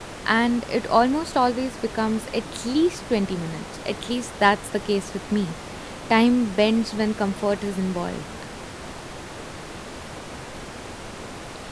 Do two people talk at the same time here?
No

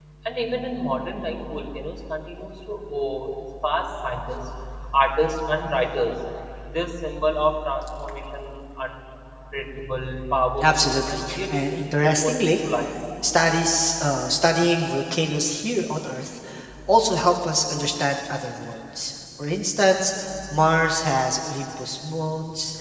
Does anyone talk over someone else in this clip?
Yes, from 10.6 s

